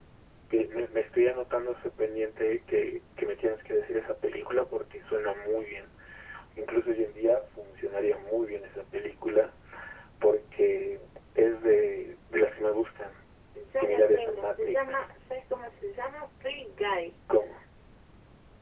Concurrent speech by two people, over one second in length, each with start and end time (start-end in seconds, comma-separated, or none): 13.8-15.0